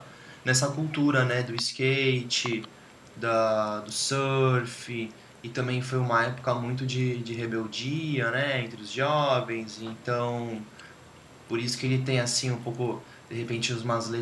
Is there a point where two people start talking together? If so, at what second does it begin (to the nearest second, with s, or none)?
none